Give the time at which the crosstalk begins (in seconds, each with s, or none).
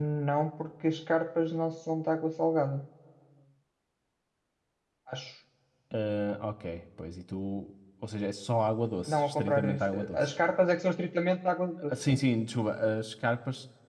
9.1 s